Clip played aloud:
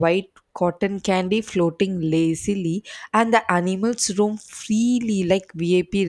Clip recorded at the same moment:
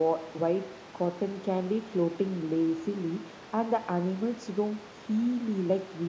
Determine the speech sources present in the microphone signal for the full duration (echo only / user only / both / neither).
echo only